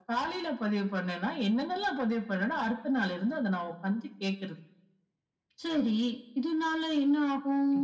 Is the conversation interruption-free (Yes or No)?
Yes